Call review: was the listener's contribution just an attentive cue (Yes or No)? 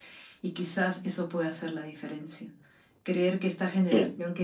Yes